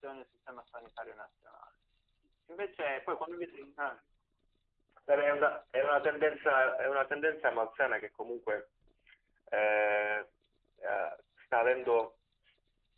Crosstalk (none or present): none